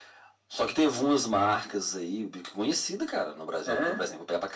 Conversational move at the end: listening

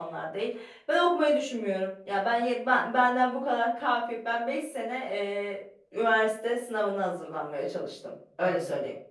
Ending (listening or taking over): taking over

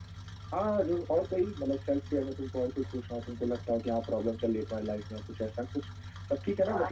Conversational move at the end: taking over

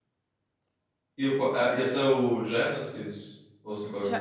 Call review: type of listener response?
taking over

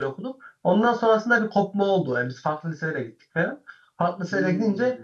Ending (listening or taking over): listening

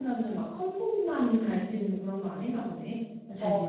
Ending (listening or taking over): taking over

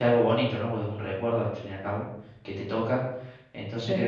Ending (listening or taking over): listening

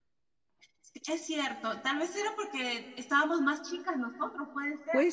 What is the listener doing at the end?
taking over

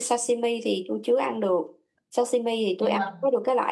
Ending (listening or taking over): listening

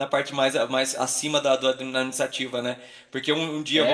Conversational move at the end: listening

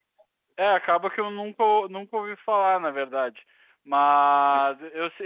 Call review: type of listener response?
listening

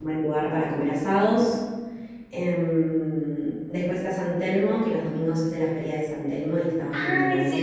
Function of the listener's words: taking over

